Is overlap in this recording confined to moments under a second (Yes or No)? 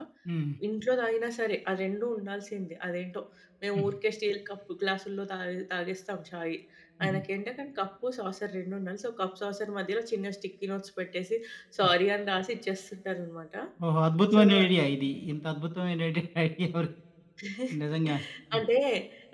Yes